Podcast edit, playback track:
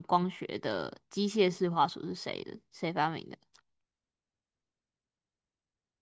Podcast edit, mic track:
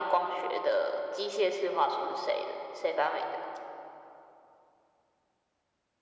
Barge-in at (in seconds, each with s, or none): none